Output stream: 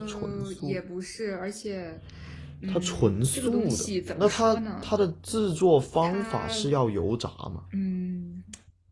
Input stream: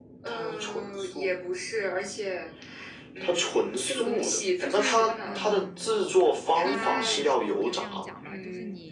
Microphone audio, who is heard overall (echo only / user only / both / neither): both